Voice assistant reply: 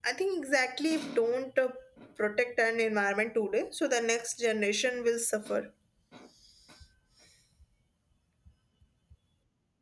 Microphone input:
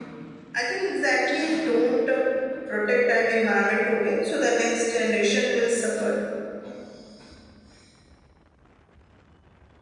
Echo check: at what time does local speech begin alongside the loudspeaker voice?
none

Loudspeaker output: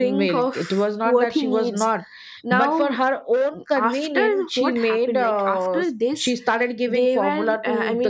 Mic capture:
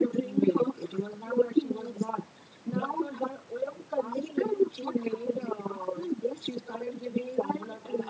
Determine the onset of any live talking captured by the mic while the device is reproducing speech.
none

